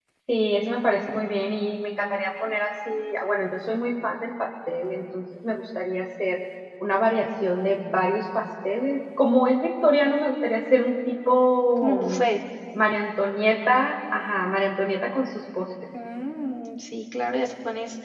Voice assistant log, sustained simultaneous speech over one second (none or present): none